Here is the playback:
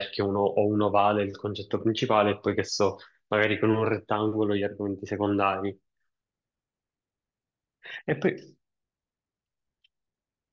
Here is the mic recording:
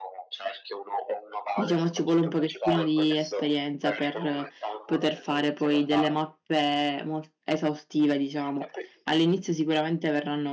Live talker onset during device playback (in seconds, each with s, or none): 1.5 s